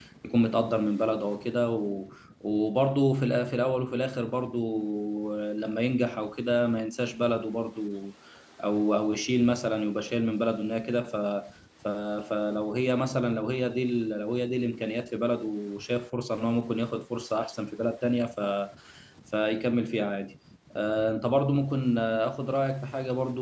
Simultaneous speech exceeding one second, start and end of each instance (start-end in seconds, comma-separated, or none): none